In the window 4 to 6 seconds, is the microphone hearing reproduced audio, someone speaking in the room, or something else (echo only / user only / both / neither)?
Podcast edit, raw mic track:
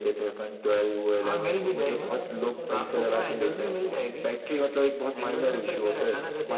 echo only